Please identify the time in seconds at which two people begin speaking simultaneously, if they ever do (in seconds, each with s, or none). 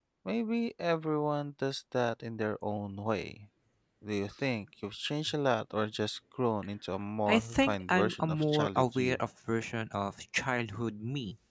7.3 s